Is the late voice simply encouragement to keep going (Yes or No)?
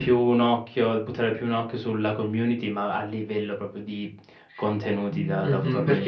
No